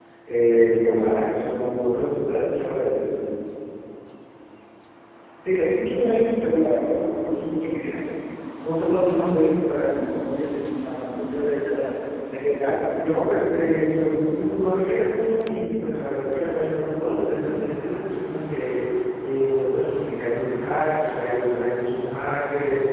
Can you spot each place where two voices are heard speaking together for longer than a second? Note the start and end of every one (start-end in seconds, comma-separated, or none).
none